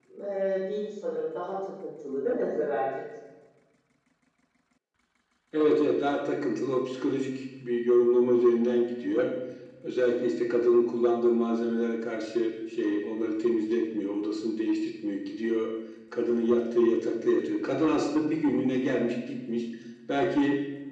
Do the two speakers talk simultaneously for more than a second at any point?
No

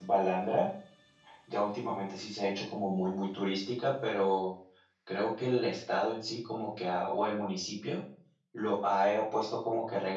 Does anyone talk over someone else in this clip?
No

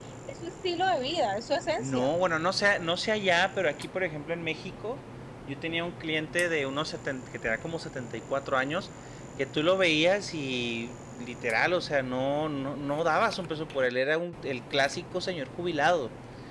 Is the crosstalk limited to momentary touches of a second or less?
Yes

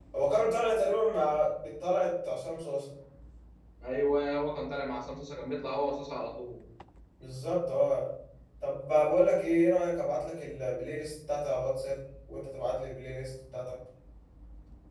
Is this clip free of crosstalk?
Yes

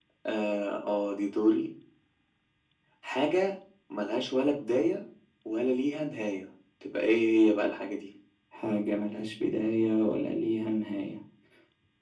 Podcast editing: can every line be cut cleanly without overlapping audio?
Yes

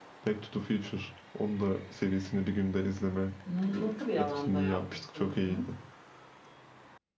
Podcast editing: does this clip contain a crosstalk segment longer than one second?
Yes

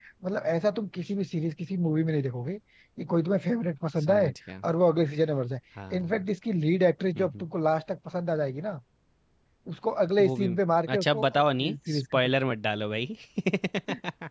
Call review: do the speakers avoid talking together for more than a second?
No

